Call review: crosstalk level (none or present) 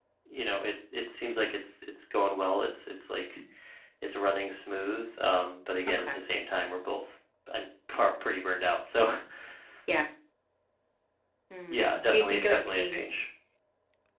present